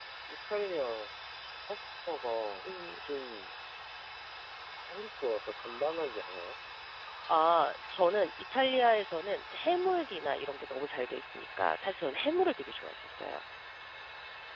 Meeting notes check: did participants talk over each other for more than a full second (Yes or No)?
No